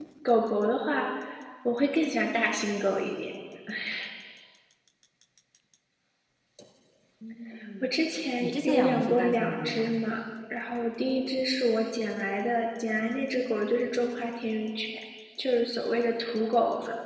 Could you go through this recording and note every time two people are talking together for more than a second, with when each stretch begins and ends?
8.4-10.0

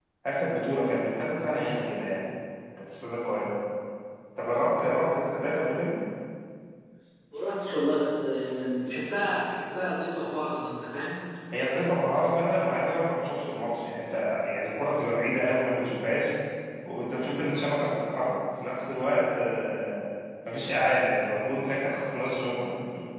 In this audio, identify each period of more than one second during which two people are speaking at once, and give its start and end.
none

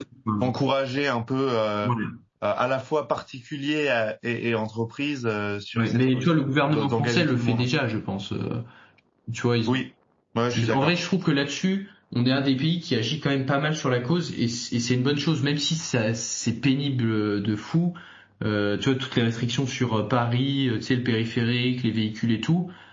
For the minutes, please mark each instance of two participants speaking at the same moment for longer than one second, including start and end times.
5.8-7.7

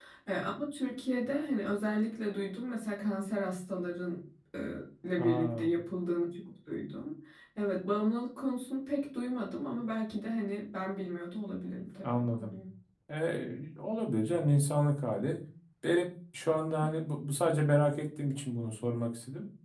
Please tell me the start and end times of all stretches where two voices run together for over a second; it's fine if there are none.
none

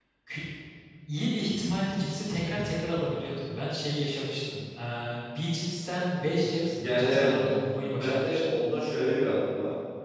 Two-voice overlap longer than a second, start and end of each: 6.9-8.4

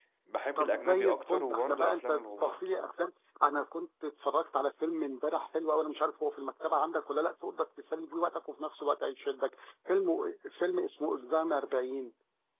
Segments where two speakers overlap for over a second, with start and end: 0.6-2.7

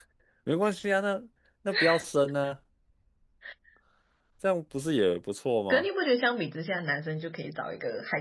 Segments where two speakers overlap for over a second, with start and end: none

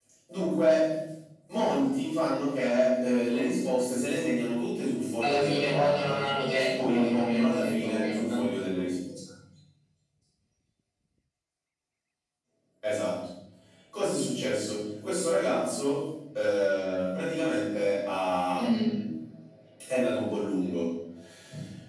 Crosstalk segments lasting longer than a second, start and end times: 5.2-8.4

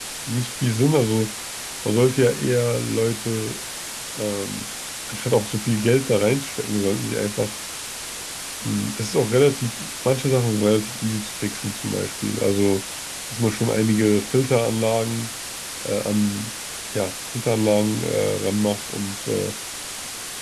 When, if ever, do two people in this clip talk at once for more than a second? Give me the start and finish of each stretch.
none

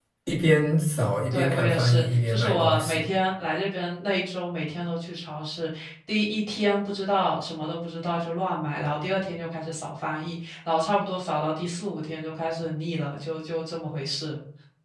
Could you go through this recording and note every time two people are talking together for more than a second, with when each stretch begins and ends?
1.3-3.0

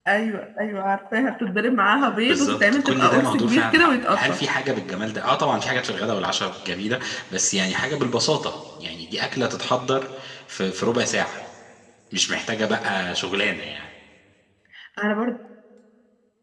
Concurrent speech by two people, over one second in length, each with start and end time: 2.3-4.4

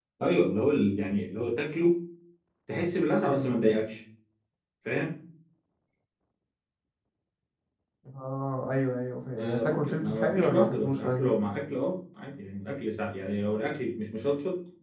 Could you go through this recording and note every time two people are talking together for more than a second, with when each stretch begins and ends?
9.4-11.3

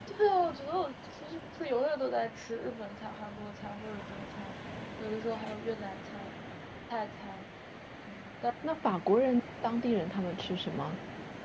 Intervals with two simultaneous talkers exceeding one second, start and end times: none

